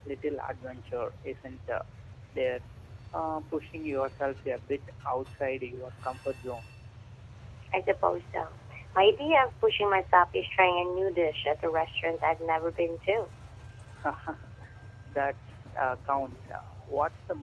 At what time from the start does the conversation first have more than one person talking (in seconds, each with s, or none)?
none